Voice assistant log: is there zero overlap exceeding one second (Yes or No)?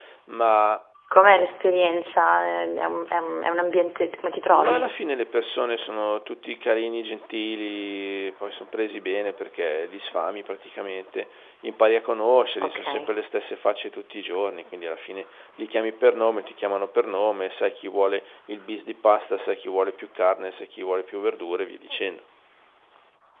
Yes